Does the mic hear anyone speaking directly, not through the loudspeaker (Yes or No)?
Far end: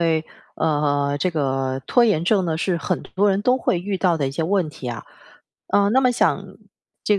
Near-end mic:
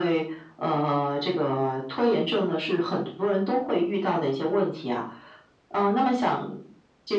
No